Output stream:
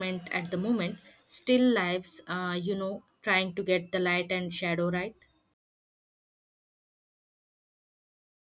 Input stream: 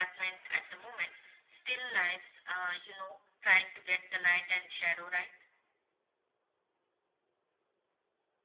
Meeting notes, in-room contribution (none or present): none